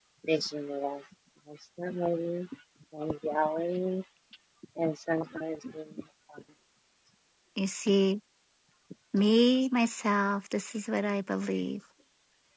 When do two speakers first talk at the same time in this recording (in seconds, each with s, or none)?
none